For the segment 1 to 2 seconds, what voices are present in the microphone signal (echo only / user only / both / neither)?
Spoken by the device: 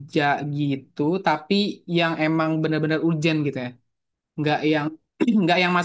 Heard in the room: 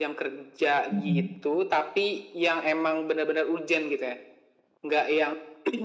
both